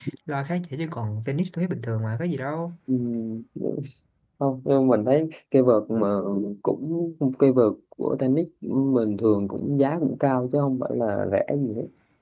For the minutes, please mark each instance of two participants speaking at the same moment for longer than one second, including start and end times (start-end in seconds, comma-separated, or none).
none